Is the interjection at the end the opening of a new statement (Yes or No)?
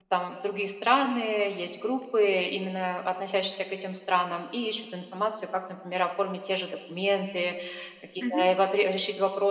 No